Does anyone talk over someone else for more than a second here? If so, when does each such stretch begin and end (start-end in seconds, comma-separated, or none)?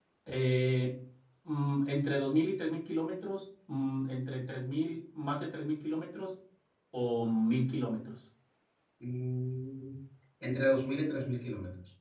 none